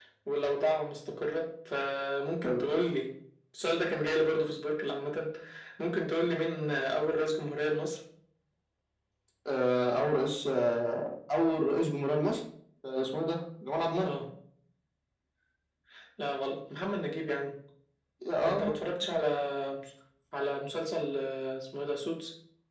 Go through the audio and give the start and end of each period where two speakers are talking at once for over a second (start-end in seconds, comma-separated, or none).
none